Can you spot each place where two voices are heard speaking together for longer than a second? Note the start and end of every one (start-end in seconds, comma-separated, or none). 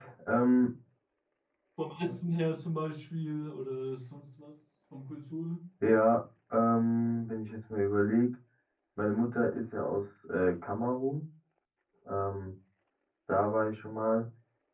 none